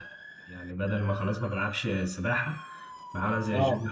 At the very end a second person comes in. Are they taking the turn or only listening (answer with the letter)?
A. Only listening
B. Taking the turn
A